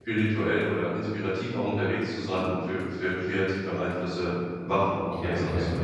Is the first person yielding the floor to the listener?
Yes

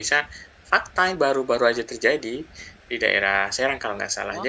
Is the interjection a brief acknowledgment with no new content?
Yes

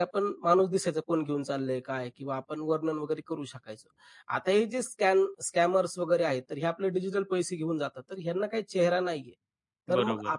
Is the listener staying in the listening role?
Yes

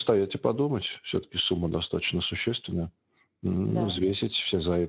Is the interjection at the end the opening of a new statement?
No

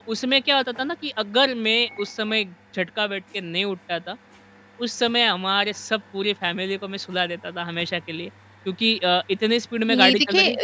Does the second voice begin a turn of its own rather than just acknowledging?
Yes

